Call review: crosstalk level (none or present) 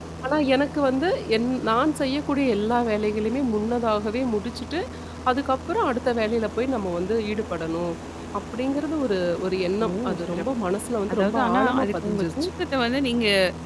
present